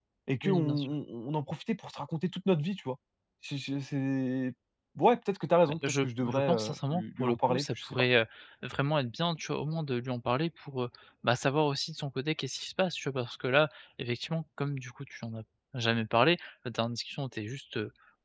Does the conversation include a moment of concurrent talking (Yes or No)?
Yes